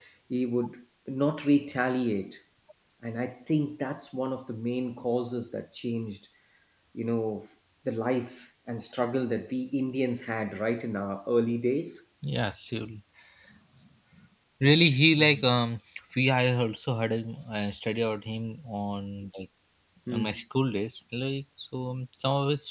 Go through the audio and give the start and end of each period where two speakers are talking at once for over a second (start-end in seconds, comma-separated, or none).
none